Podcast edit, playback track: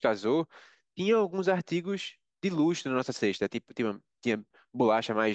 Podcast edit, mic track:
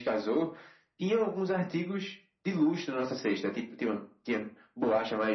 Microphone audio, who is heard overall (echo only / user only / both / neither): echo only